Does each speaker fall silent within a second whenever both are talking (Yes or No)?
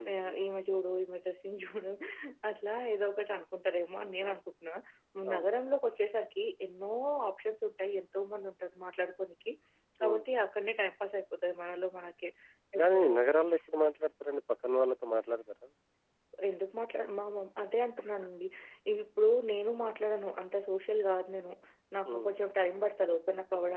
Yes